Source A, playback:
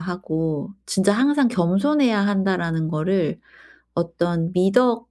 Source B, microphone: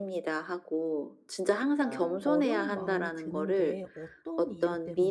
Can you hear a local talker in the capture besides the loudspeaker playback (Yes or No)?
Yes